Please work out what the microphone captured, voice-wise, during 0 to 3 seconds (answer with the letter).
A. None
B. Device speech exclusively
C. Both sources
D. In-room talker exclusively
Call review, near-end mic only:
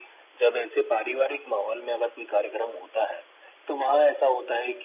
B